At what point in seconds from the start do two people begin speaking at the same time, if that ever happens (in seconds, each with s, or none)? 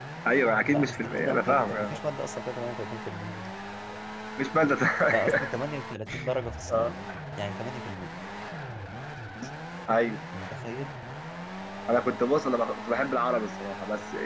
0.7 s